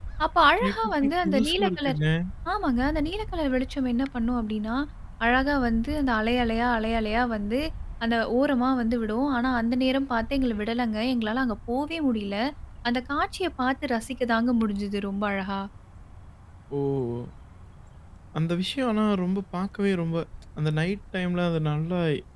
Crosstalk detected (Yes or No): Yes